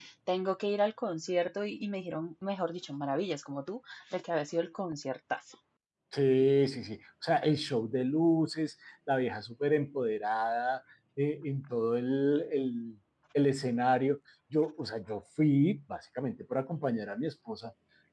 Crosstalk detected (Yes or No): No